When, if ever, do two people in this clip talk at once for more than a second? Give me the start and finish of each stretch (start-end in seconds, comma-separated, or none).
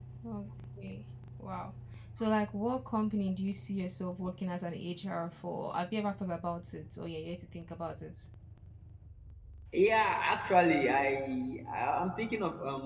none